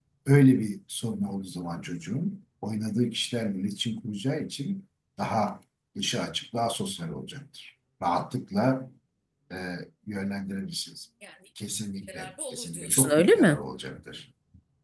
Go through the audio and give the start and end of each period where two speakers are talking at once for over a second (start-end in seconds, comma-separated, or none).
12.1-13.6